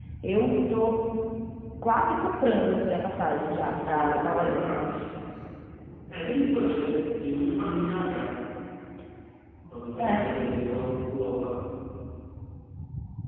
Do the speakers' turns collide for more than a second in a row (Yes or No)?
Yes